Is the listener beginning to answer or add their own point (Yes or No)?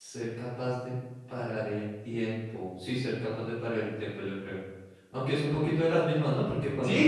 Yes